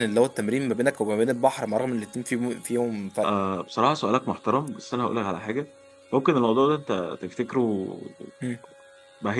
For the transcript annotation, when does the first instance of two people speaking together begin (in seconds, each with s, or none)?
none